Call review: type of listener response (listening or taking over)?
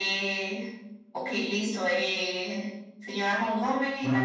listening